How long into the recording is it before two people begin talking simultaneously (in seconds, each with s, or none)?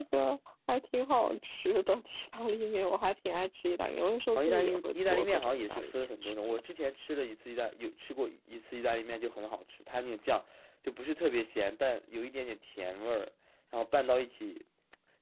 4.3 s